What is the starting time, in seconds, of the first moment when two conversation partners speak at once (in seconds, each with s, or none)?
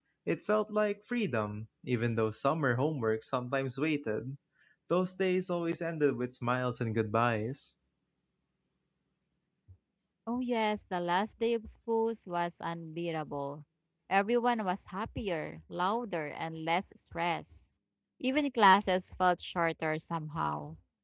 none